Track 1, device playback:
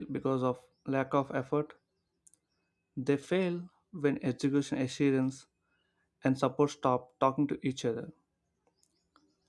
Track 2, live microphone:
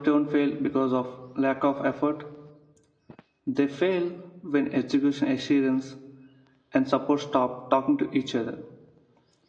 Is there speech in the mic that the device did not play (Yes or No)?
No